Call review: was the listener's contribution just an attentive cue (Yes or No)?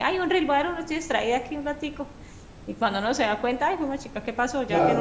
No